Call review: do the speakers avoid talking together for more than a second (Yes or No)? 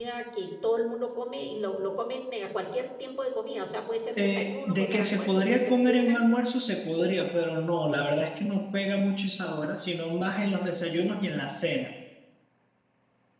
No